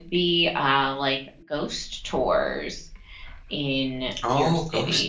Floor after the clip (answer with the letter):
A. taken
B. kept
A